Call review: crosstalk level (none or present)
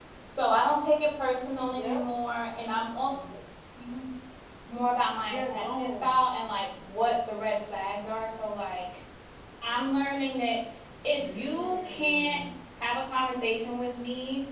present